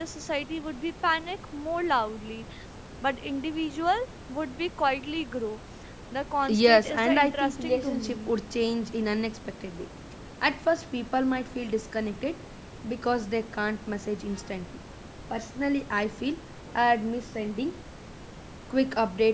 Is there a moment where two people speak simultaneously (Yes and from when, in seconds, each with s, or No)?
Yes, from 6.6 s